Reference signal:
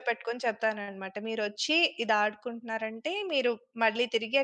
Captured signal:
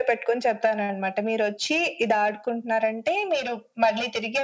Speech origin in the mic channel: echo only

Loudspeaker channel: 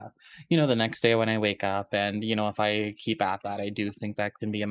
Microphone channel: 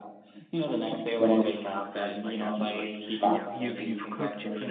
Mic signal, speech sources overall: both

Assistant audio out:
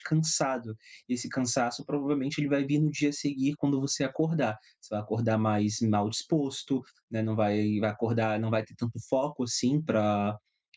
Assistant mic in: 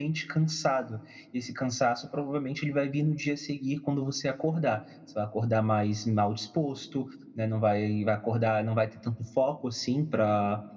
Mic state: echo only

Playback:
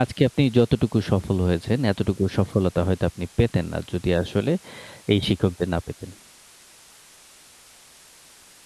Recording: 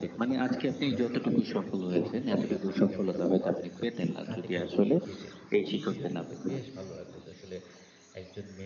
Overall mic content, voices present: both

